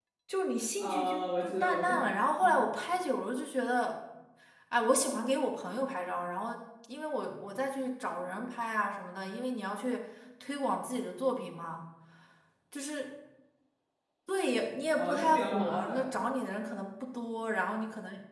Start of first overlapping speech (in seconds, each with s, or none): 0.8 s